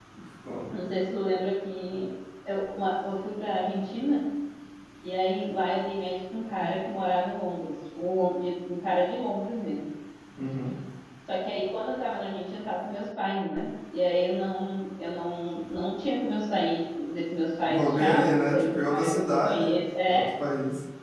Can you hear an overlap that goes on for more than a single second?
Yes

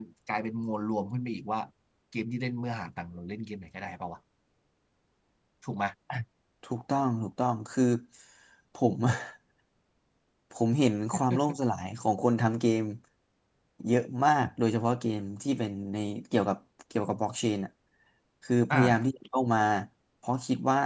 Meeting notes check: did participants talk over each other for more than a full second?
No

